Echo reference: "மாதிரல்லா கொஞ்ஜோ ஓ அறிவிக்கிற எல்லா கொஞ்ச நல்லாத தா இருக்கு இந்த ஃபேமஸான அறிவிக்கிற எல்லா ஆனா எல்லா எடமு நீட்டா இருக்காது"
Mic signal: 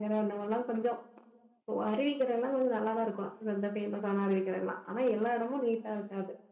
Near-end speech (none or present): none